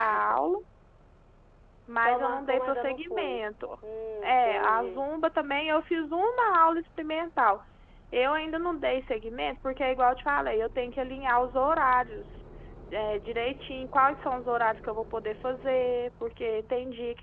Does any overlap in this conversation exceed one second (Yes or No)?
Yes